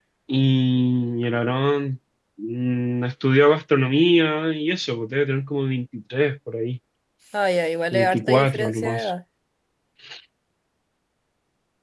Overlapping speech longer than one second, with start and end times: 7.9-9.1

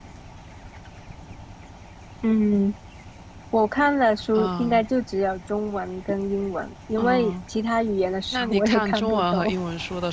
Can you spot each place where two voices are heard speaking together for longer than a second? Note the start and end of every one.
8.3-9.5

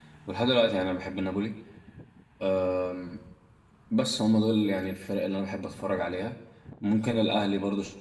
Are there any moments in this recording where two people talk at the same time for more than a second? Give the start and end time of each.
none

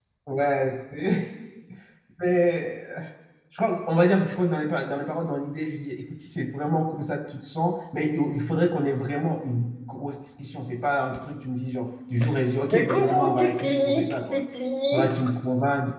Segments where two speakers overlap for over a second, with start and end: 12.7-14.4

